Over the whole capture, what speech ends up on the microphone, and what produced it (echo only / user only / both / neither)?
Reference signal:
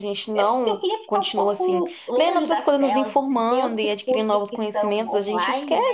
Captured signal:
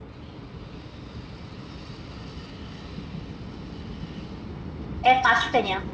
user only